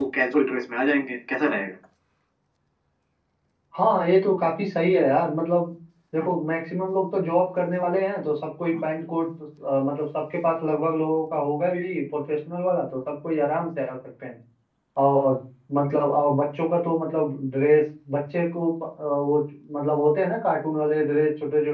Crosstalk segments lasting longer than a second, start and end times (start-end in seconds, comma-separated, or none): none